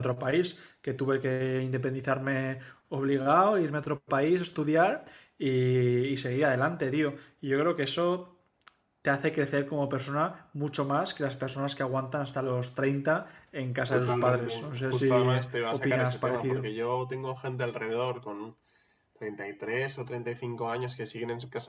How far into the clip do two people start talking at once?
13.9 s

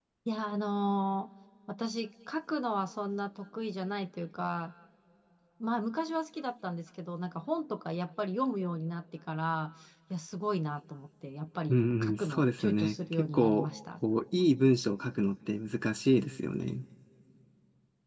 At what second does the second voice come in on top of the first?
11.7 s

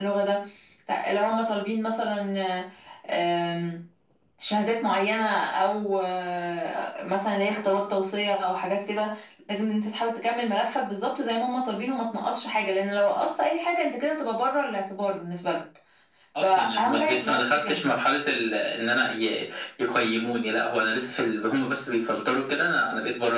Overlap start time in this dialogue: 16.4 s

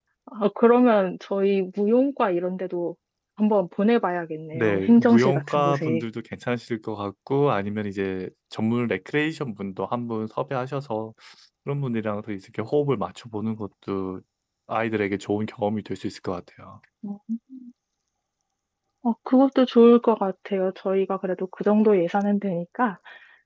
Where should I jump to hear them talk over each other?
4.5 s

